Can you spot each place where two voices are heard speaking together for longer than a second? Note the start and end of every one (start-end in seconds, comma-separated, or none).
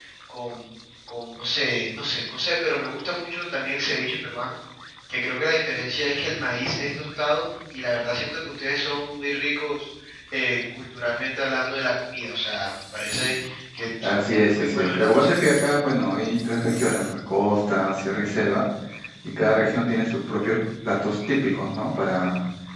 14.0-15.3